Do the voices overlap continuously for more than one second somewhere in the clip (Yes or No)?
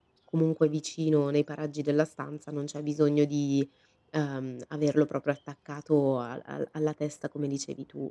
No